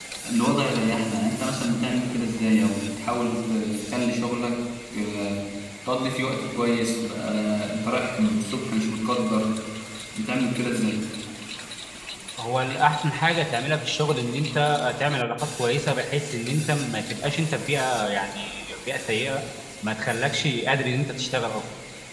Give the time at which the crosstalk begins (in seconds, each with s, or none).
none